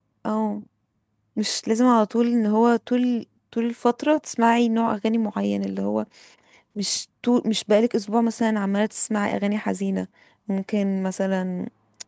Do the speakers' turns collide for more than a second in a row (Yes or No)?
No